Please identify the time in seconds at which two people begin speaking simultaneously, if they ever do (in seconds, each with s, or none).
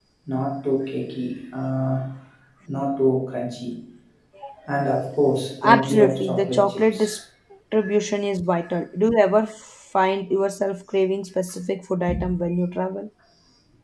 5.6 s